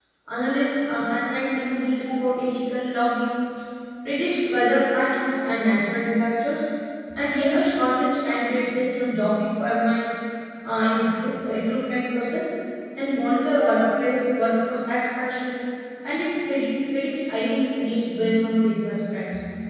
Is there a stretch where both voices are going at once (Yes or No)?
No